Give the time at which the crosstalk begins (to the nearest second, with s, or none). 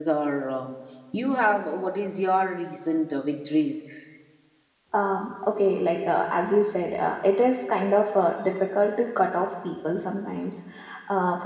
none